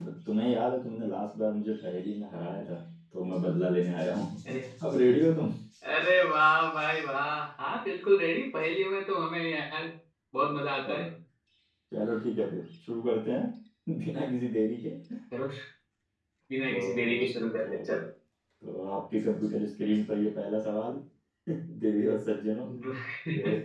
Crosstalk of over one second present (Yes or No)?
No